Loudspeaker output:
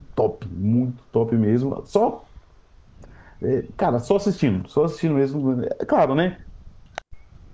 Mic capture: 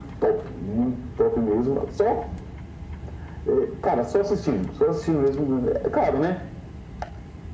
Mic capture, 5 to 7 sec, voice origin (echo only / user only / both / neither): echo only